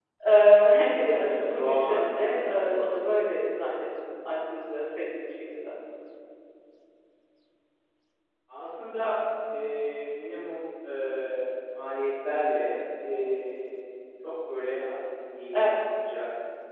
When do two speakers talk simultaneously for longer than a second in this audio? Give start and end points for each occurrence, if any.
1.1-2.6

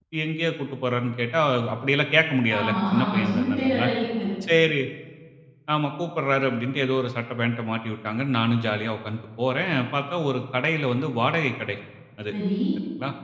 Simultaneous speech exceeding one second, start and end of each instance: 2.6-3.9

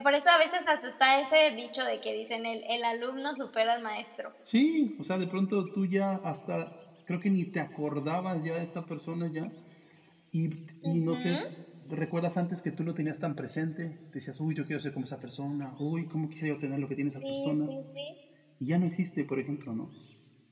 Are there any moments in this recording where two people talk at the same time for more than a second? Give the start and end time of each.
none

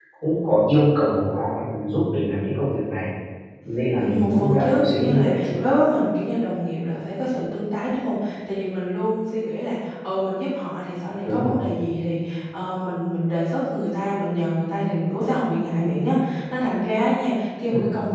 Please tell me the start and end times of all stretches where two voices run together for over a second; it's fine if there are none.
4.0-5.6

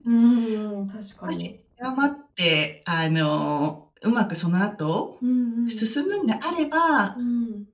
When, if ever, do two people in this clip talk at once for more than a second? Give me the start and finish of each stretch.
none

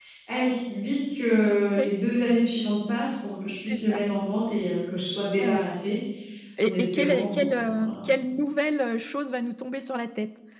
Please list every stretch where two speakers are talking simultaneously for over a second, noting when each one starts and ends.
6.7-8.0

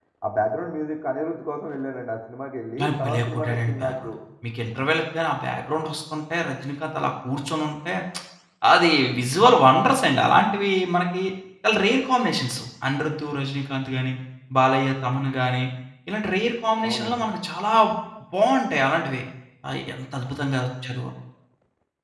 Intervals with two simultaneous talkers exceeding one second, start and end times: 2.8-4.1

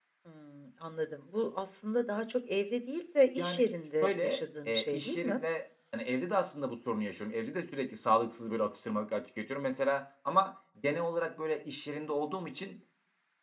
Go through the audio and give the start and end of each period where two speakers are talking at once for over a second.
4.0-5.4

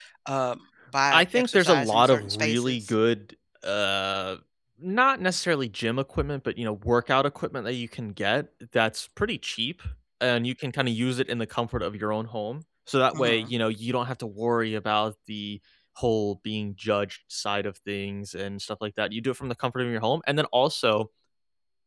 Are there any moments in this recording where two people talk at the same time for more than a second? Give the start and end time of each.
1.1-2.9

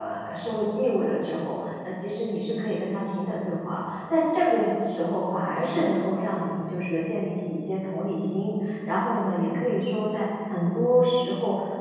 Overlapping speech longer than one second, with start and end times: none

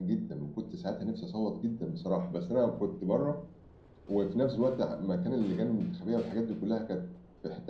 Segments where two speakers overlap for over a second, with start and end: none

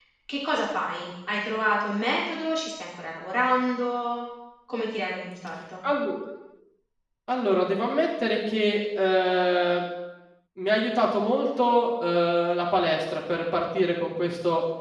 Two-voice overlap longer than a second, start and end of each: none

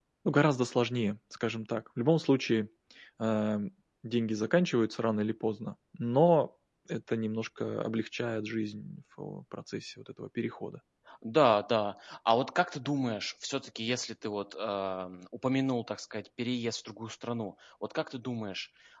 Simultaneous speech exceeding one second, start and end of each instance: none

